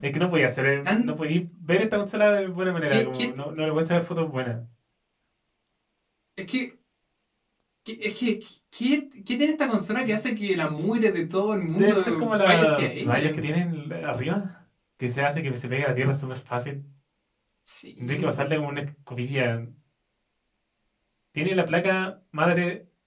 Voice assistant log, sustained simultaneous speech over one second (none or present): present